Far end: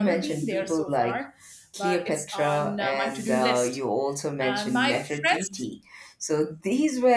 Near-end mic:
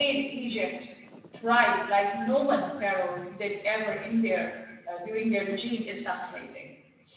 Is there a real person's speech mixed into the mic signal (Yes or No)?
Yes